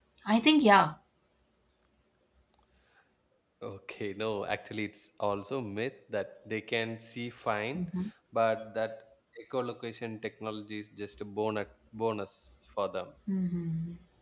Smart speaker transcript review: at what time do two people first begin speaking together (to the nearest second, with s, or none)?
none